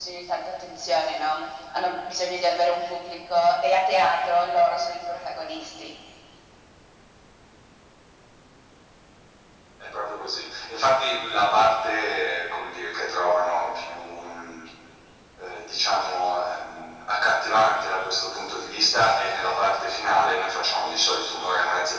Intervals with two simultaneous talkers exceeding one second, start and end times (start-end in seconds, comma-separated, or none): none